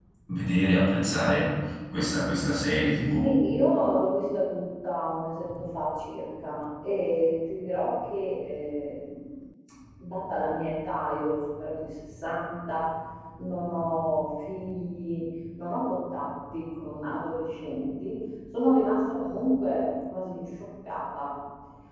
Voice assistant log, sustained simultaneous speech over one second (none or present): none